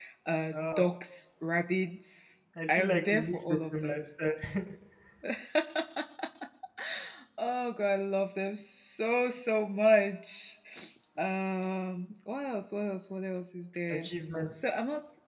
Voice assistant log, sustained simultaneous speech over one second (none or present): present